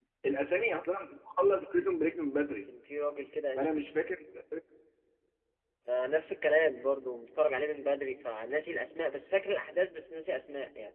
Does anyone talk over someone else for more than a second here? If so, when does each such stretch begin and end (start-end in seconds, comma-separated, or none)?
none